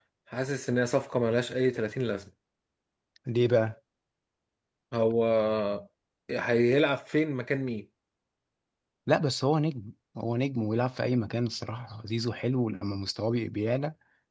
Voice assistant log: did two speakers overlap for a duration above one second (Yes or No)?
No